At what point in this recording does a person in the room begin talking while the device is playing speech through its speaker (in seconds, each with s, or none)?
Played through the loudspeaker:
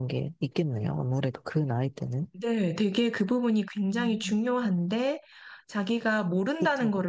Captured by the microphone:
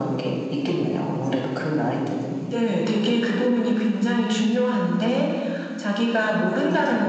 none